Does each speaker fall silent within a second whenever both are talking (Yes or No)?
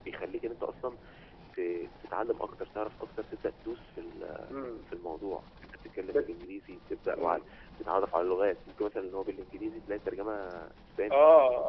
Yes